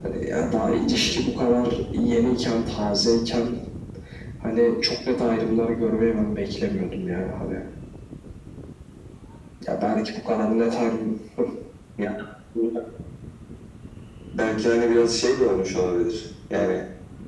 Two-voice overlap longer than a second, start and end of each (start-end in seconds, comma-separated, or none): none